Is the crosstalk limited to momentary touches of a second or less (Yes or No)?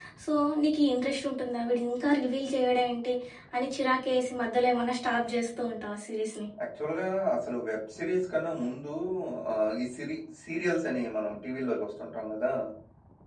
Yes